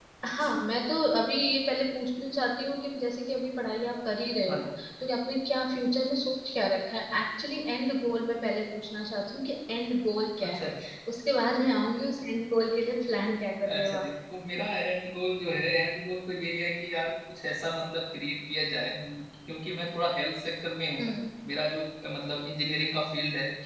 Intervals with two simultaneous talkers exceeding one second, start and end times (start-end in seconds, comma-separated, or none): none